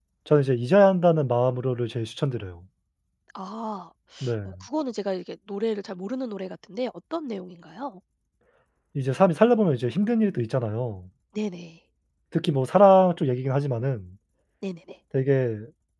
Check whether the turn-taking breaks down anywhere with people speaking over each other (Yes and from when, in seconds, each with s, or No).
No